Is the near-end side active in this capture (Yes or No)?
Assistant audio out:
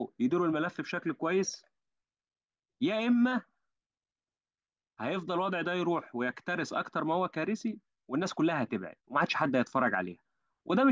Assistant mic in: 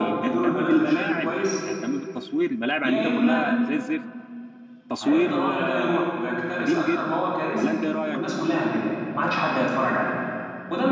Yes